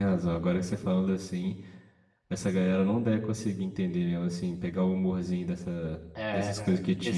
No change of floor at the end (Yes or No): No